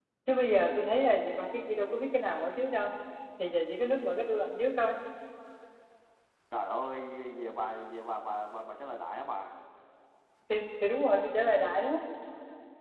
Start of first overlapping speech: none

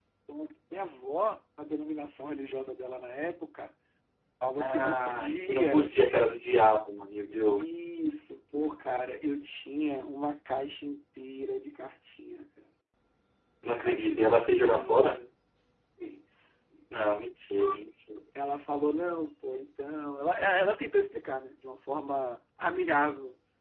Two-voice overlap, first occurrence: 4.6 s

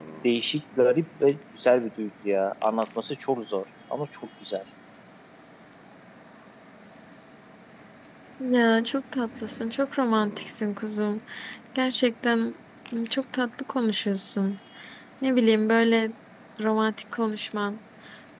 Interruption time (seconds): none

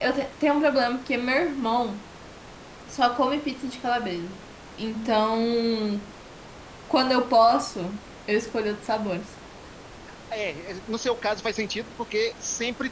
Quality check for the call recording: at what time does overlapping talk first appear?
none

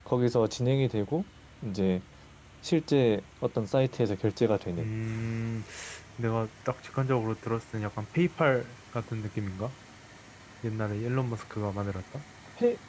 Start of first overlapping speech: none

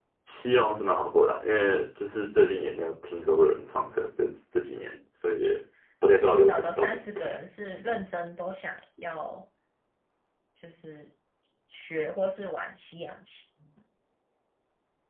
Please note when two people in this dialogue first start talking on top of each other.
6.1 s

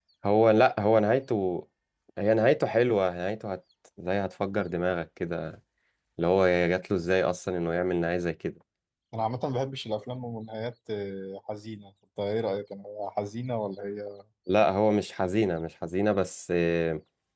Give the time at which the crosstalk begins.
none

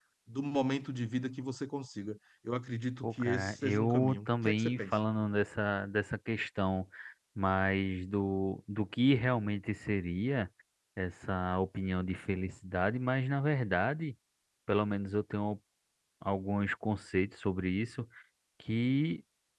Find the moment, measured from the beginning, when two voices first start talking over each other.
3.0 s

